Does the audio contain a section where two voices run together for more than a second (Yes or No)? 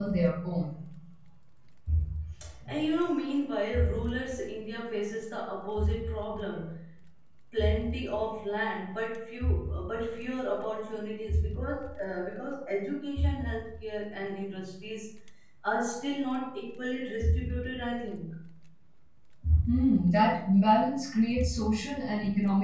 No